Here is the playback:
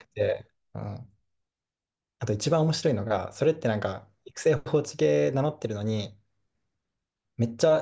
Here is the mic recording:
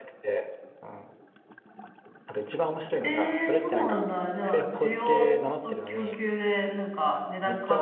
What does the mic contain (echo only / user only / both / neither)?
both